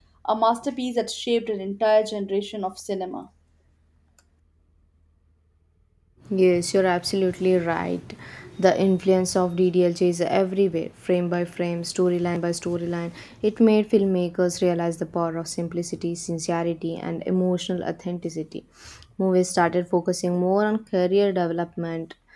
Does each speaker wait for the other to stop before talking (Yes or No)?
Yes